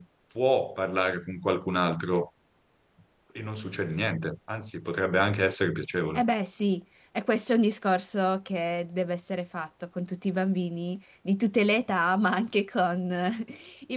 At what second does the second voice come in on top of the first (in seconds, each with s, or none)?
none